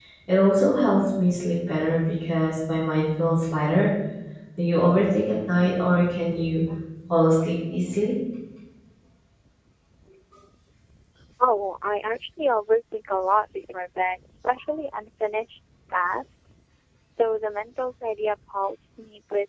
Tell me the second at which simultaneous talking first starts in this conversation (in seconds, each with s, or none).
none